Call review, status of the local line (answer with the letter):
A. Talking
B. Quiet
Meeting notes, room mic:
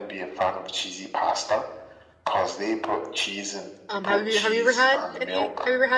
A